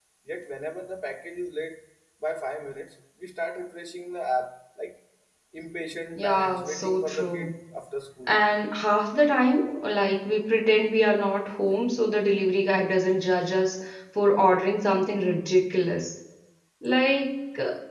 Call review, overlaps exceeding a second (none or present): present